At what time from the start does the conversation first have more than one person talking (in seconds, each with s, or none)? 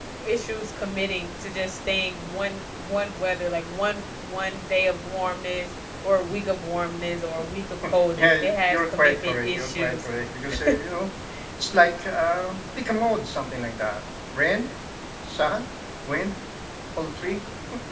8.2 s